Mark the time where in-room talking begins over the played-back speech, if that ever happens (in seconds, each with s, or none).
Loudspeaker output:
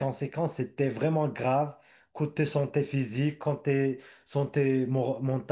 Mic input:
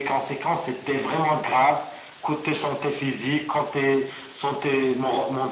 none